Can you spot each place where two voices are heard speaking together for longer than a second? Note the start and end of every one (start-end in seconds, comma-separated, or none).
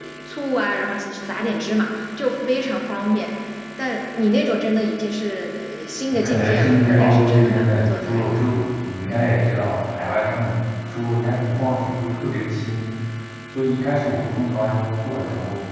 6.2-8.4